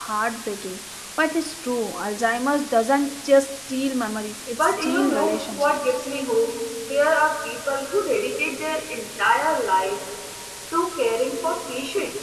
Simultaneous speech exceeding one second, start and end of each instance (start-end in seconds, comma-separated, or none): 4.5-5.7